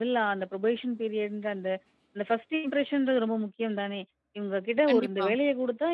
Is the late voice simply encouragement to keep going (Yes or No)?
Yes